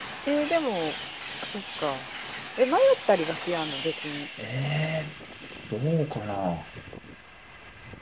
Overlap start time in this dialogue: none

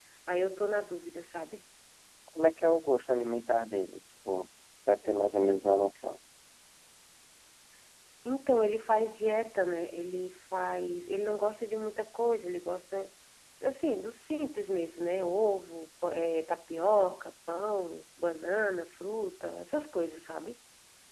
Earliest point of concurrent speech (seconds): none

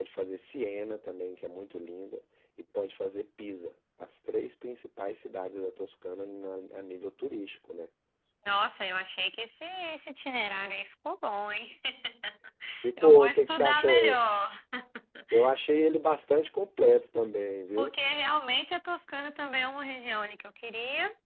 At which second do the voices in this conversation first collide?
13 s

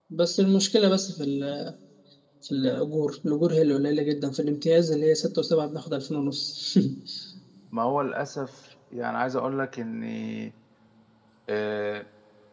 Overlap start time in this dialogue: none

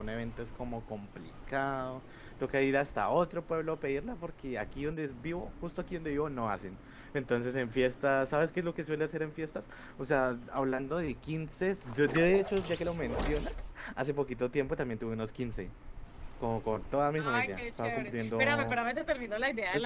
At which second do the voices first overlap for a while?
17 s

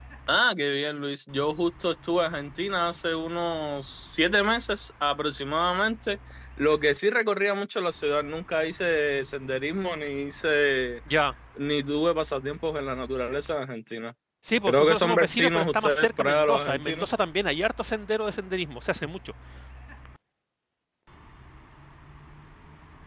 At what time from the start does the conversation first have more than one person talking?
15 s

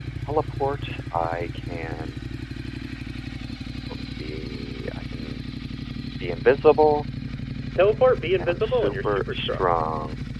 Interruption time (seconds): 8 s

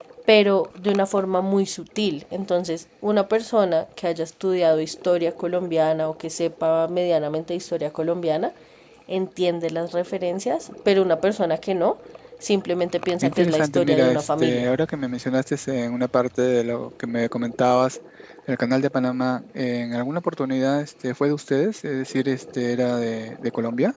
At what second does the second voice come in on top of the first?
13 s

